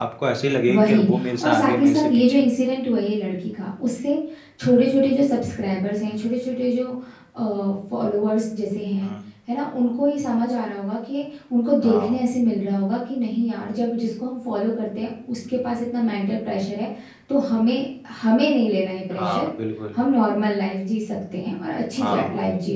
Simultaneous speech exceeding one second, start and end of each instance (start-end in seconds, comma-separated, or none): 0.7-2.5